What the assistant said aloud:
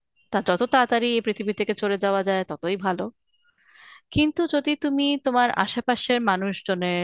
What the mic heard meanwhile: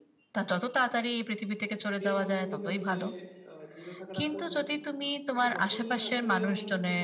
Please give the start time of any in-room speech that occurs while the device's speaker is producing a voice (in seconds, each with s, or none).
2.1 s